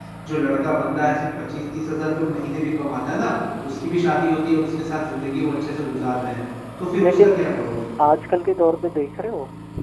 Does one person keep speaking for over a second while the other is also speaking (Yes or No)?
No